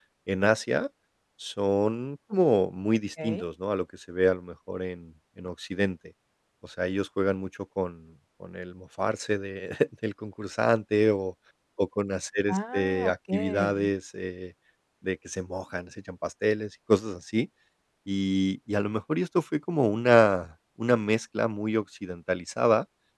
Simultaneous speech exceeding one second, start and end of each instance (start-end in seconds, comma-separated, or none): 12.5-13.9